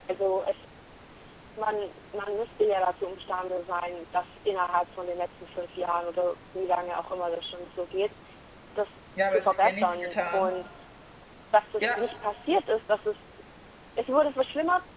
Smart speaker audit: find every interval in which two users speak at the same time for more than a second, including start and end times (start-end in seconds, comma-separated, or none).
9.3-10.5